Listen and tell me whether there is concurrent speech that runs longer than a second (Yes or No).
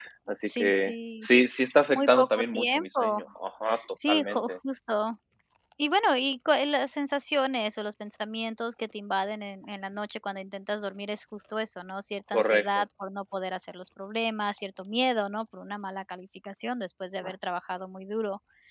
Yes